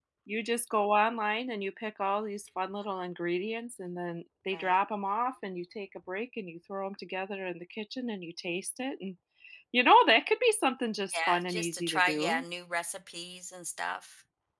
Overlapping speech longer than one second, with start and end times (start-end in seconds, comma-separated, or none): 11.1-12.4